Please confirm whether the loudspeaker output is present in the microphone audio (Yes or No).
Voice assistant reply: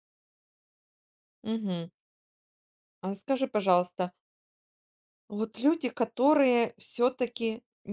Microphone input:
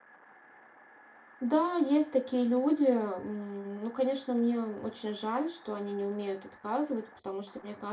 No